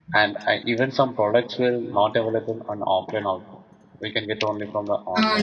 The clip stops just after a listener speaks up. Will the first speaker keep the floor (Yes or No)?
No